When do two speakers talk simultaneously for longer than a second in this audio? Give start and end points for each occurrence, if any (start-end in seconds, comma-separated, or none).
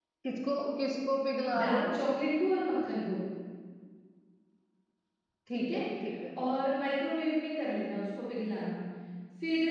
none